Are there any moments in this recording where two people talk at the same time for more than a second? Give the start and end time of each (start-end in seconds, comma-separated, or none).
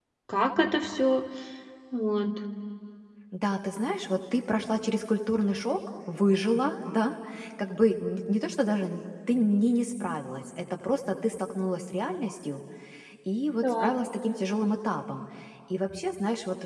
none